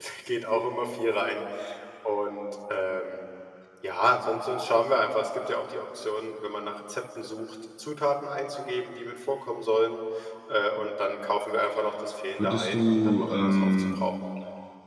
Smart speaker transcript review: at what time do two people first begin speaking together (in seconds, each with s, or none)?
12.4 s